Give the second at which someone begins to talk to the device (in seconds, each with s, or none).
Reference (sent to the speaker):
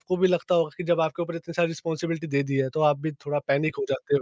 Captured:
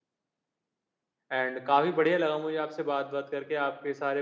1.3 s